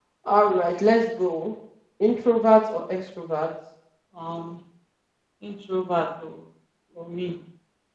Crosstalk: none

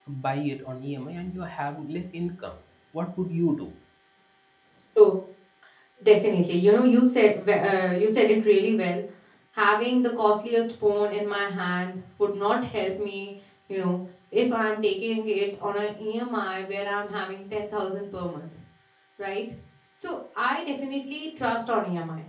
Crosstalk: none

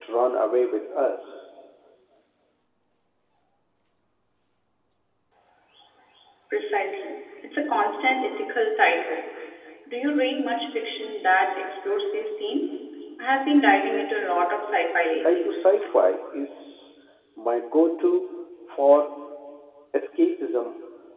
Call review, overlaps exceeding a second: none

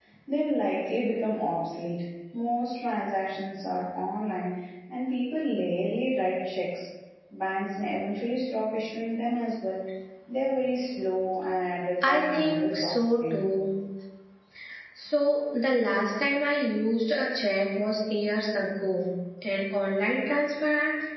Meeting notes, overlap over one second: present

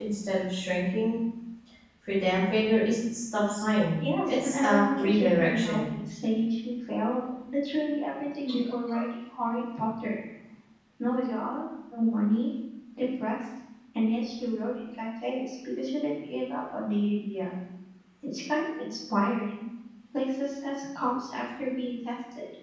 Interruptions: present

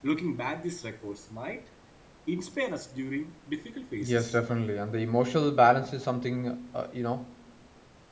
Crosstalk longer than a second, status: none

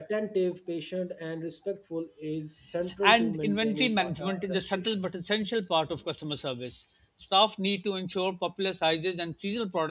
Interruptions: present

